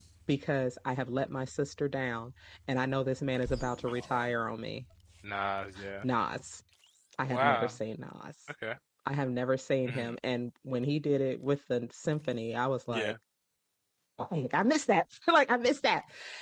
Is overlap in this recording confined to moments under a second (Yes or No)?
Yes